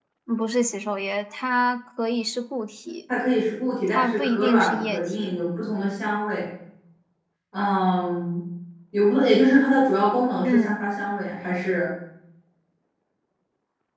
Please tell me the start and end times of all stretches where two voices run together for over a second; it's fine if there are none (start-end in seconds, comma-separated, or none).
3.9-5.4